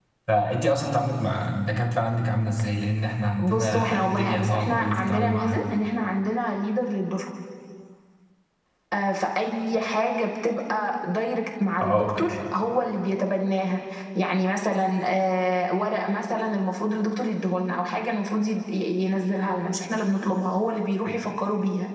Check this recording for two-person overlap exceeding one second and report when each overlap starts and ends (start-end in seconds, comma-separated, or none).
3.4-5.6